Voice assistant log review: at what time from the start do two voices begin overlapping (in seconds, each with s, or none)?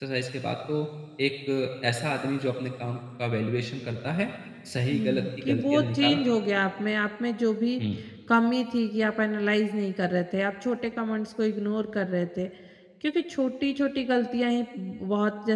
4.9 s